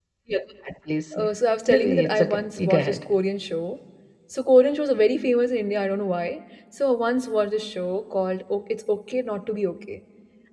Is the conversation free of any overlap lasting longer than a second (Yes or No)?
No